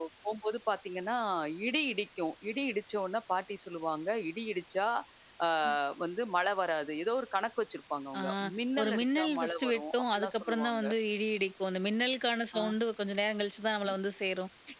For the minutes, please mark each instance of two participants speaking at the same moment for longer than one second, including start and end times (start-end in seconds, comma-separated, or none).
8.8-10.8